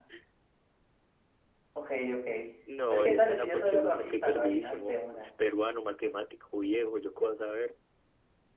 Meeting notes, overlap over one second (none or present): present